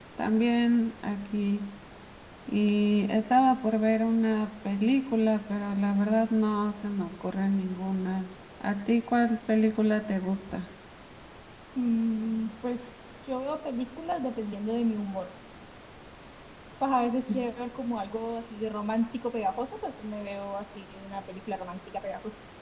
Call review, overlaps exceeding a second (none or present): none